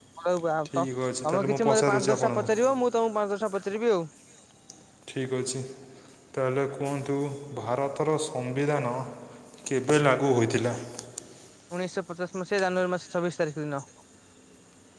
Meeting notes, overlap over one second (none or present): present